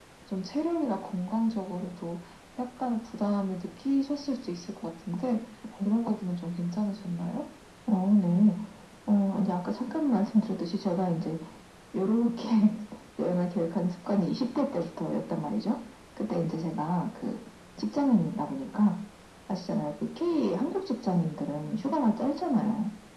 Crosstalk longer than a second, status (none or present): none